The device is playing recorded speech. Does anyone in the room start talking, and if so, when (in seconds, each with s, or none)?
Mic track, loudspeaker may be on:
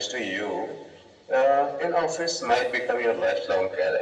none